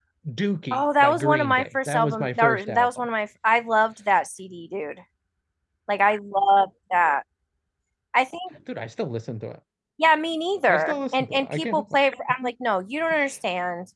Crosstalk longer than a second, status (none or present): present